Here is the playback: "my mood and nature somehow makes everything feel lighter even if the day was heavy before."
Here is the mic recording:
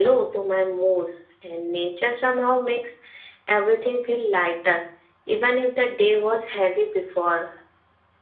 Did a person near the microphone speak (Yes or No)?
No